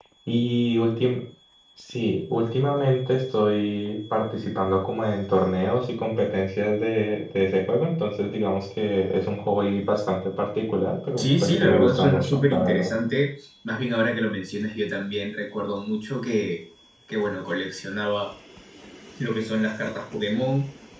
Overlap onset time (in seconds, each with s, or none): 11.2 s